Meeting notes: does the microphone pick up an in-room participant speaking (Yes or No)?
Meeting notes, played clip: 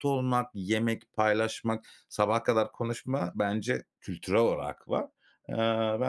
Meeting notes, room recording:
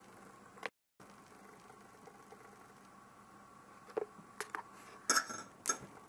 No